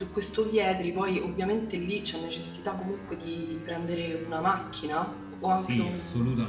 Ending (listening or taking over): taking over